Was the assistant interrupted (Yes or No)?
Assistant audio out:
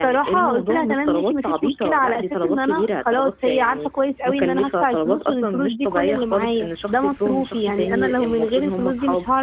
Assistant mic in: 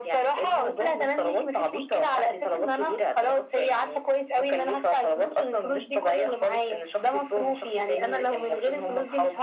No